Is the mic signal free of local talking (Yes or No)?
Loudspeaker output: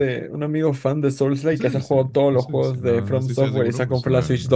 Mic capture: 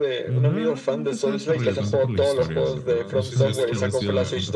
No